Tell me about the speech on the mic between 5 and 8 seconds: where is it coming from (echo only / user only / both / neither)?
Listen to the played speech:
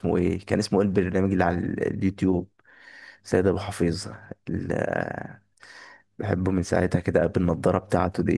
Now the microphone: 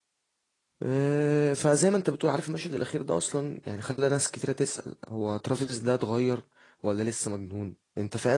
user only